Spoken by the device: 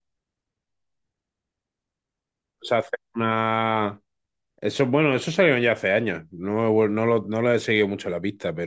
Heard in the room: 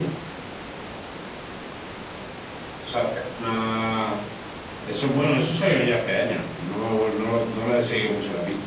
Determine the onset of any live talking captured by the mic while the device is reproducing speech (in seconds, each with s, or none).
none